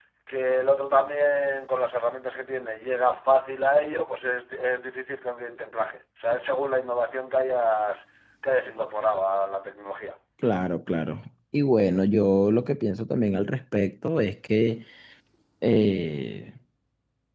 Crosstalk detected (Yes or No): No